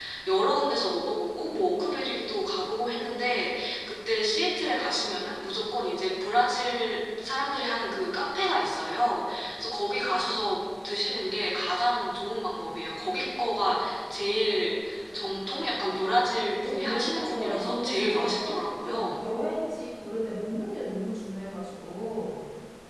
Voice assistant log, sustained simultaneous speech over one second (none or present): present